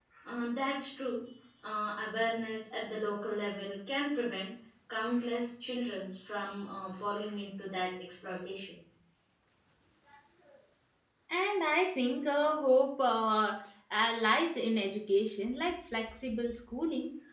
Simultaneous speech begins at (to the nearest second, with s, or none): none